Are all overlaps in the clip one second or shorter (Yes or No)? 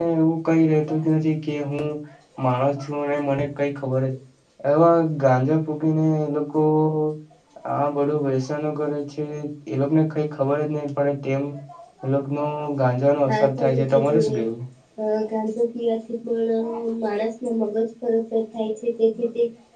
No